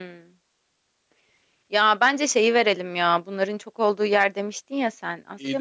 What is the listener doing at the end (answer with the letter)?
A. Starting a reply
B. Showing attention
A